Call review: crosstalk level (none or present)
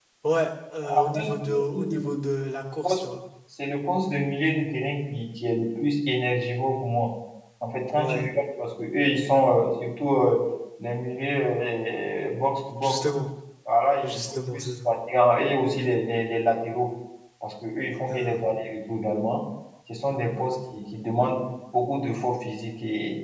present